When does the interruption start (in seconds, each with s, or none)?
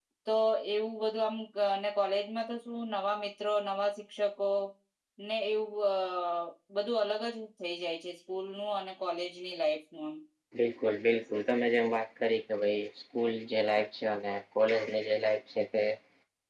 none